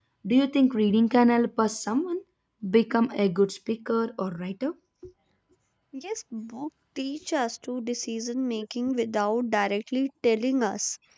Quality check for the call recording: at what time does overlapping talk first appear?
none

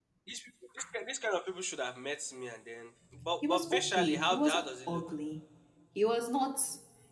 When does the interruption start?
3.4 s

